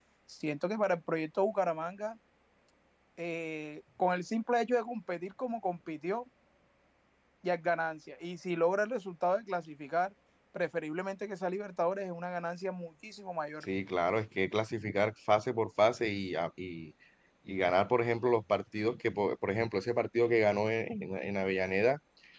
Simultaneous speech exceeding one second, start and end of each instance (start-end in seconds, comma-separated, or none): none